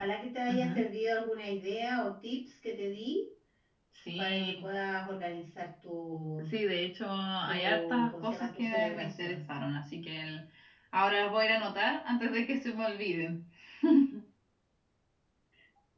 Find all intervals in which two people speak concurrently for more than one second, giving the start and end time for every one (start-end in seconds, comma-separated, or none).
7.5-9.4